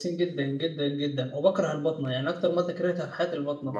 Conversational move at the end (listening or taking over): taking over